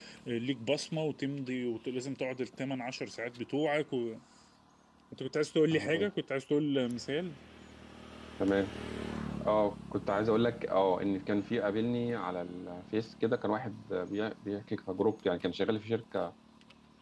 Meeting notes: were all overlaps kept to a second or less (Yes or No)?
Yes